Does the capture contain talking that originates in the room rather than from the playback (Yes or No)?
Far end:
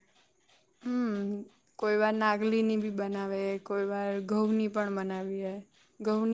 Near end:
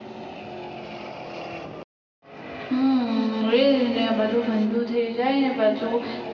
Yes